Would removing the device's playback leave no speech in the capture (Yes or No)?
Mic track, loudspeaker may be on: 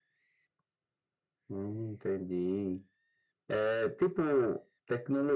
Yes